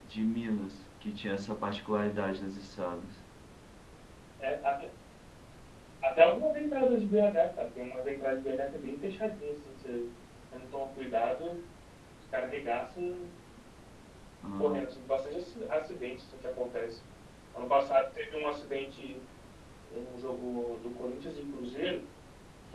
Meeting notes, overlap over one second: none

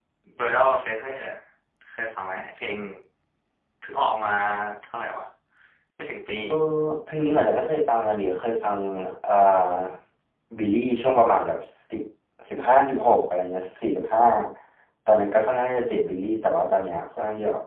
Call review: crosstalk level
none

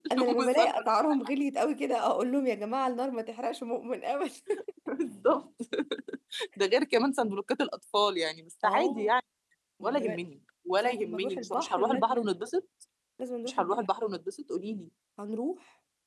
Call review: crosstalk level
present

